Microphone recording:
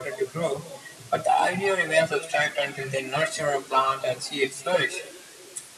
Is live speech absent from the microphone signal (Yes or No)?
Yes